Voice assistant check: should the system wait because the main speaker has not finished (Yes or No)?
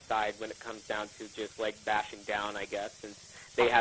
Yes